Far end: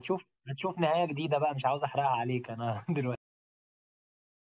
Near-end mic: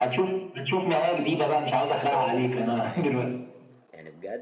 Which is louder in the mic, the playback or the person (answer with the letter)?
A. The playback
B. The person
A